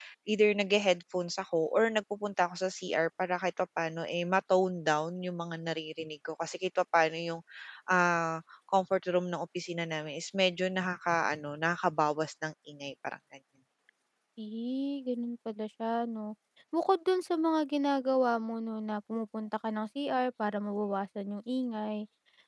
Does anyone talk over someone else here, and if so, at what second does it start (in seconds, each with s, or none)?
none